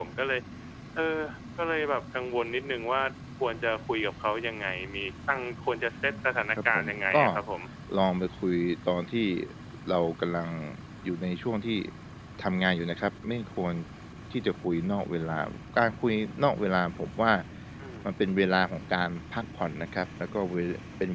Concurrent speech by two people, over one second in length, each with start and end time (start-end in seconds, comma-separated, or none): 6.0-7.2